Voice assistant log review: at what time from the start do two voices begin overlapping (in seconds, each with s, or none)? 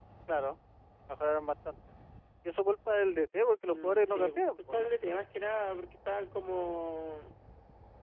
3.7 s